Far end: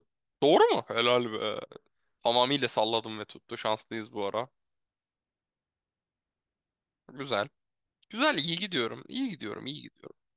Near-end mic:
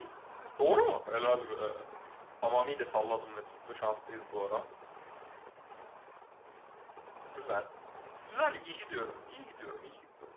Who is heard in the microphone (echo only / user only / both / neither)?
echo only